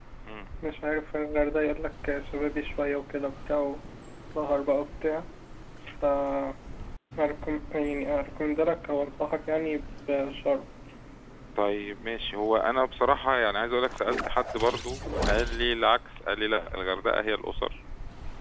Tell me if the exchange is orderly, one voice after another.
Yes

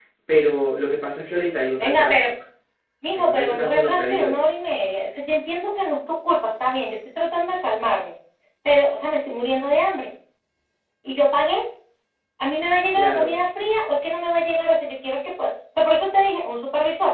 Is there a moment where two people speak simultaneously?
Yes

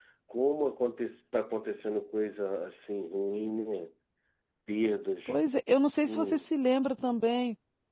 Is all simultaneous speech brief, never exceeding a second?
Yes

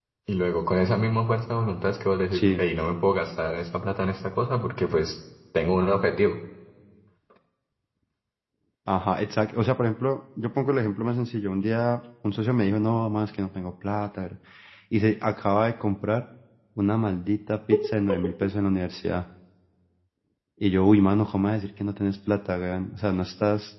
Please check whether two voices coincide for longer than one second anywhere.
No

